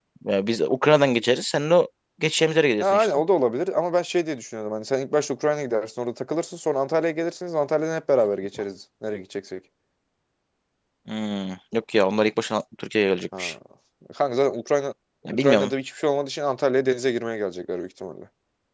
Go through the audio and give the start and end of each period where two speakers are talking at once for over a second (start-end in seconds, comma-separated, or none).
none